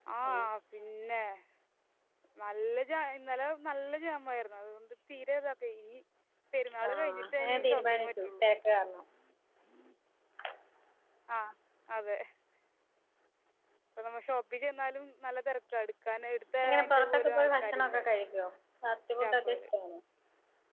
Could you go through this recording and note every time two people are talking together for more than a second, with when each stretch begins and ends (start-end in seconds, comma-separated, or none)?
6.9-8.4, 16.6-18.0